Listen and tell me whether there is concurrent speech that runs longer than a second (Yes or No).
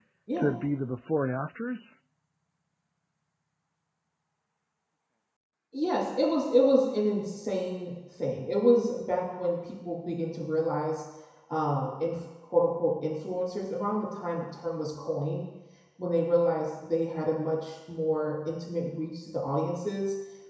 No